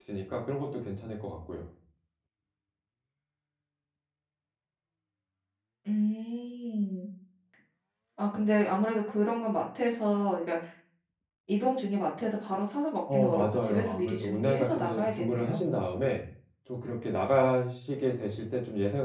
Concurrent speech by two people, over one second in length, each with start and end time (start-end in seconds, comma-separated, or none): 13.1-15.6